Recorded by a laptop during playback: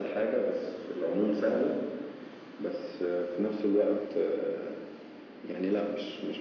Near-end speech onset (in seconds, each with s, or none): none